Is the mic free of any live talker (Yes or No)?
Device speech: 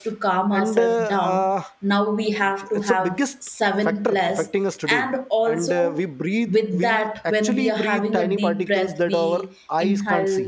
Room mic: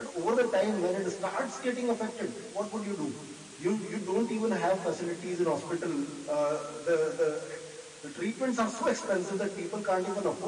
No